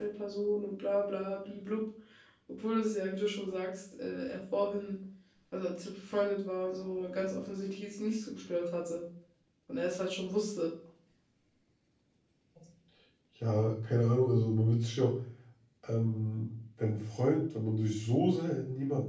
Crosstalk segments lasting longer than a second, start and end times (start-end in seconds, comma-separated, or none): none